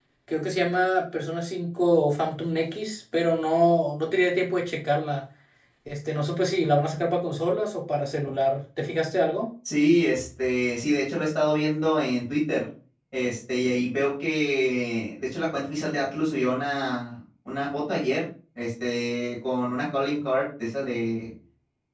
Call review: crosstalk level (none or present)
none